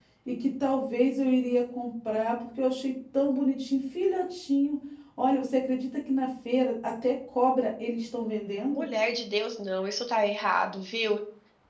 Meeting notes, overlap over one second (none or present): none